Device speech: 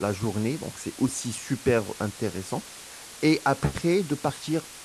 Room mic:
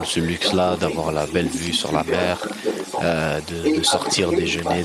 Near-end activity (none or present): present